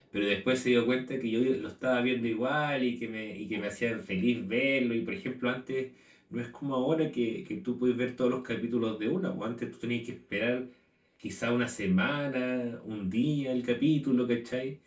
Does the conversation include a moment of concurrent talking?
No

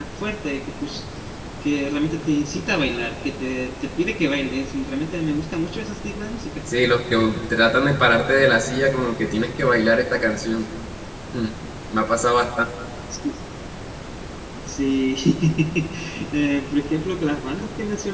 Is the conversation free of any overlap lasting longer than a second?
Yes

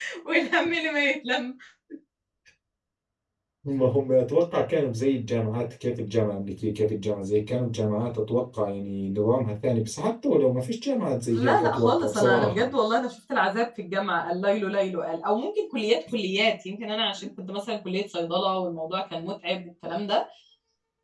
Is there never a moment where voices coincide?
No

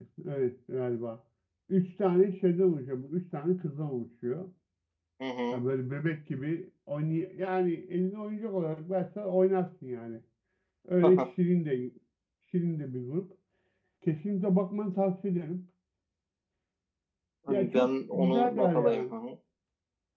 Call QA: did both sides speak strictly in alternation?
No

